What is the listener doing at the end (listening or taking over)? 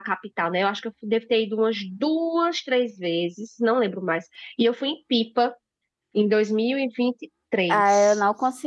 taking over